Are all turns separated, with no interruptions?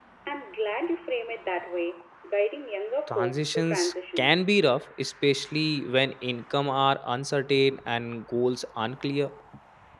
No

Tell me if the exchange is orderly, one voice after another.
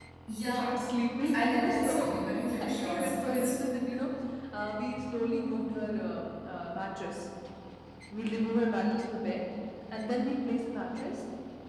No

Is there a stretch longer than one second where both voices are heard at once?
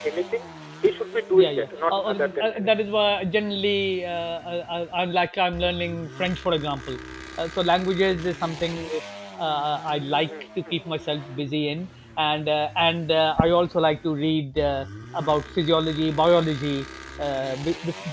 Yes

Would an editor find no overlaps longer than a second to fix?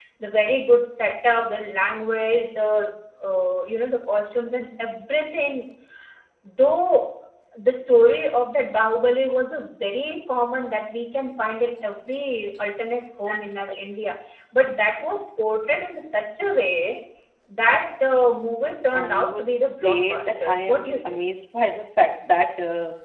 No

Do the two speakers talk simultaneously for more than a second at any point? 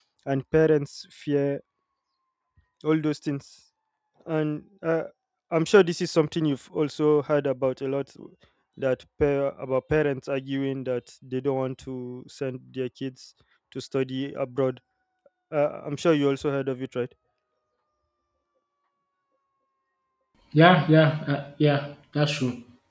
No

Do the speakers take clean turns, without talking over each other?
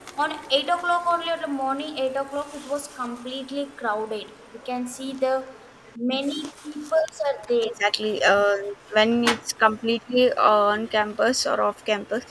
Yes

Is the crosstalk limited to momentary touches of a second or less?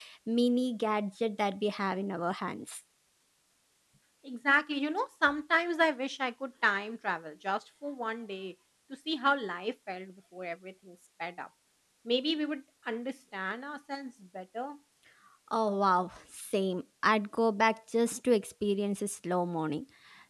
Yes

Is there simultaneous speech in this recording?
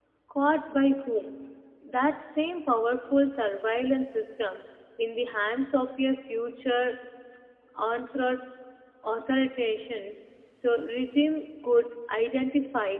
No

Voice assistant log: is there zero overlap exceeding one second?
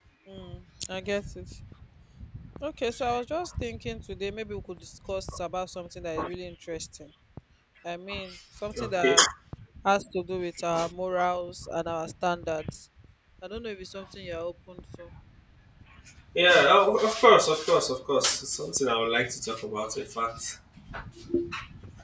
Yes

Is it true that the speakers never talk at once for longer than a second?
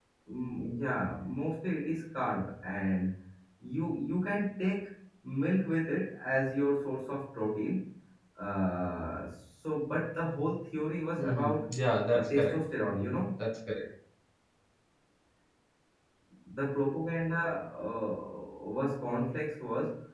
Yes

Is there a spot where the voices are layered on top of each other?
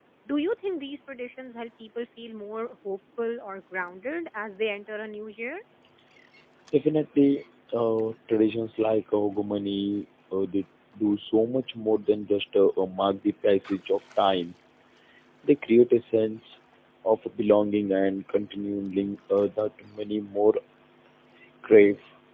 No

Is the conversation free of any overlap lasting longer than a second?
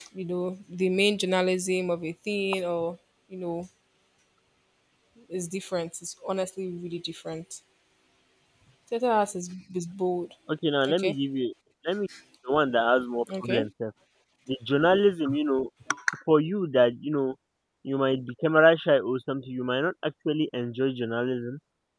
Yes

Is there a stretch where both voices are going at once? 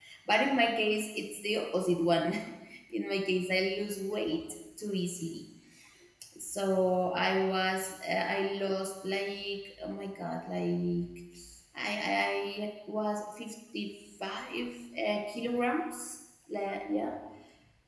No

